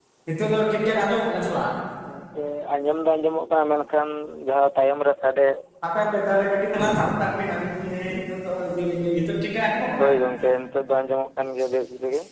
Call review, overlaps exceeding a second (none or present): none